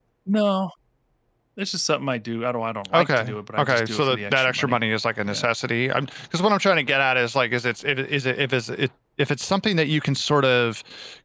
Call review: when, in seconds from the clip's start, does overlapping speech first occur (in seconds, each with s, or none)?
2.9 s